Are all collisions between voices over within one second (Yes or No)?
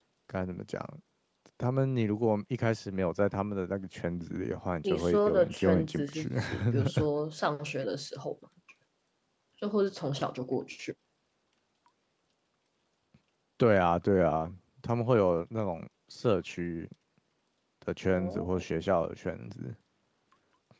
No